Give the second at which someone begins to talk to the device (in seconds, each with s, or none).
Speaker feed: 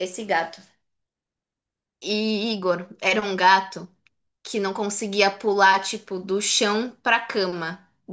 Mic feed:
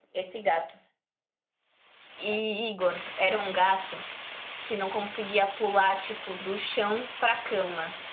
none